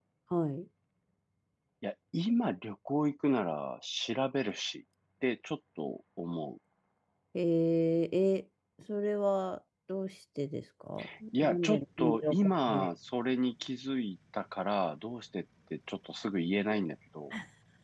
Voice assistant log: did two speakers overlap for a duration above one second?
Yes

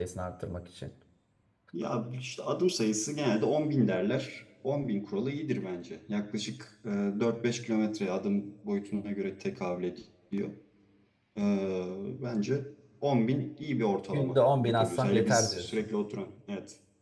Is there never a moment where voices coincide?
No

